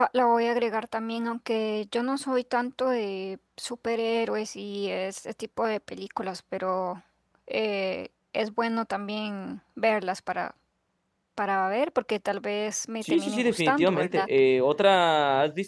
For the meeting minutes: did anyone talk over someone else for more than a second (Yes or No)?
Yes